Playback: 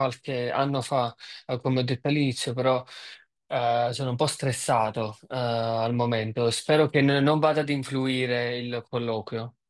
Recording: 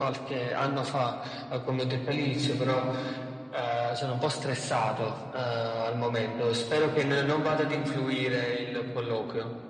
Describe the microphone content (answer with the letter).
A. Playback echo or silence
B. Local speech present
A